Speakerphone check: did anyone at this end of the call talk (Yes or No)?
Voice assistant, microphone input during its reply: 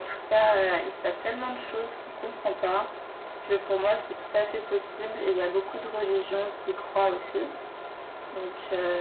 No